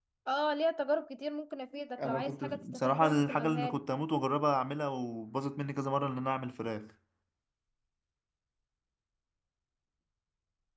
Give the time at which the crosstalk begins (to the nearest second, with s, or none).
2 s